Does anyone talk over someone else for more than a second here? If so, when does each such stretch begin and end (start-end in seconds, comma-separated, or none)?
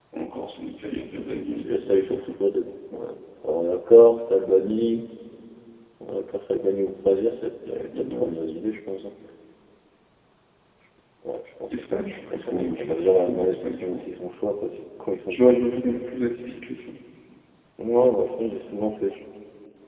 1.1-2.3, 12.3-14.1